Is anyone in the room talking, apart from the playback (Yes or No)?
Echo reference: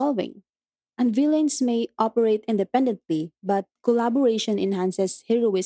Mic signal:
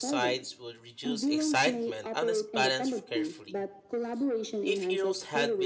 Yes